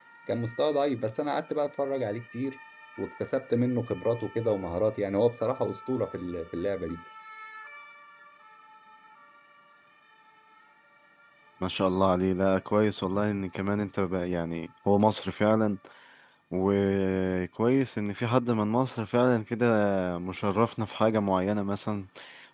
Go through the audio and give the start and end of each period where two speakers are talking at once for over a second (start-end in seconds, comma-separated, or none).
none